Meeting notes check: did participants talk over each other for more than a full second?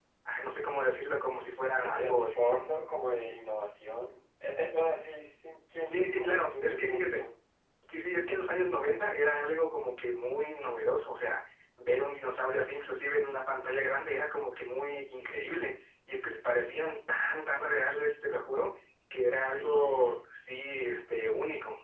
Yes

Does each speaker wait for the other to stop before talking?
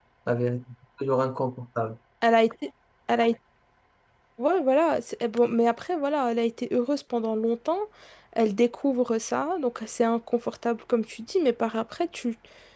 Yes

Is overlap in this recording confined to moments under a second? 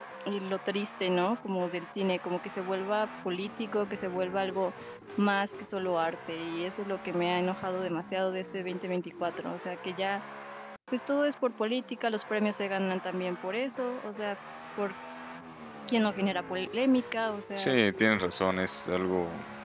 Yes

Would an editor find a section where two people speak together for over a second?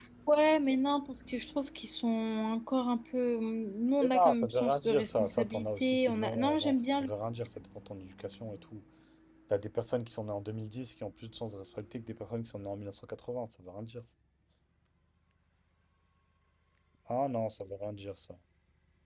Yes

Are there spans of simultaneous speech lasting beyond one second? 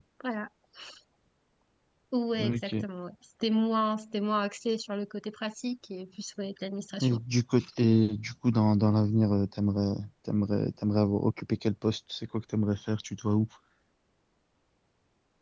No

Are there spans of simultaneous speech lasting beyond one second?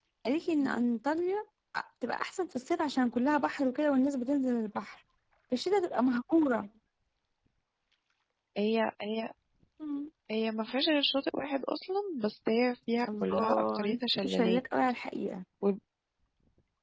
Yes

